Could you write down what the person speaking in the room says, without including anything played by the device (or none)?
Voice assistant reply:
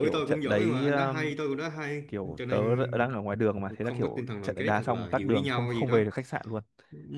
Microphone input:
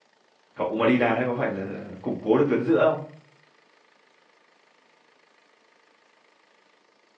cậu mà đi đá đấy có phải là củng cố được tuyến giữa không